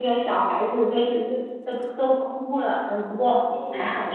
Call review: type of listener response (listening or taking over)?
listening